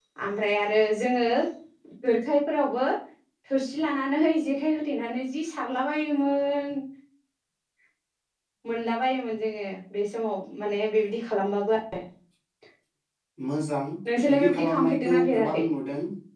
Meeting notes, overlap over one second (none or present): present